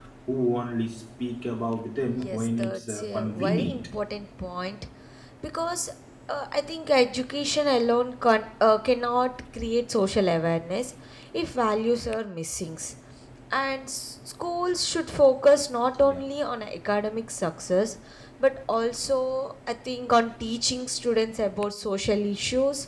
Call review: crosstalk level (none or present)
present